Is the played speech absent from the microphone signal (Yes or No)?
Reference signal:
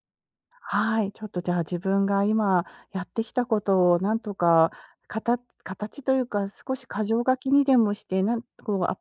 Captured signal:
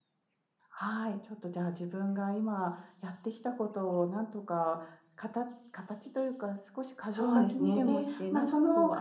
No